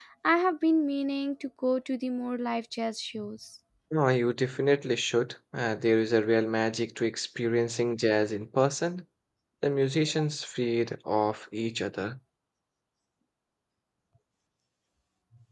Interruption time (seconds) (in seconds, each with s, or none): none